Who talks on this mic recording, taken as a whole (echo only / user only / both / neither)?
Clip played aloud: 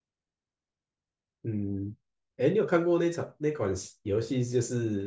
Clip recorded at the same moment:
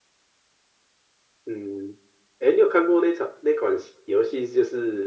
echo only